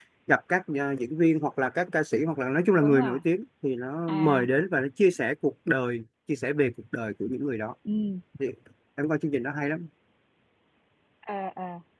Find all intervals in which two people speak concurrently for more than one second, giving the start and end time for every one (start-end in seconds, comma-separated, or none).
none